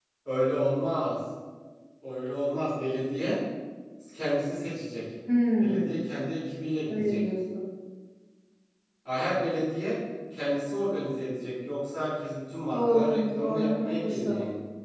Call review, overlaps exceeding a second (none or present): present